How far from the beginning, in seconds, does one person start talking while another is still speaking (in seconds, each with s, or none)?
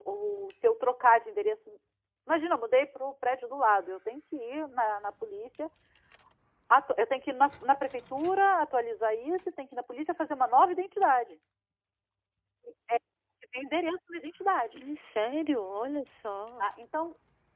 none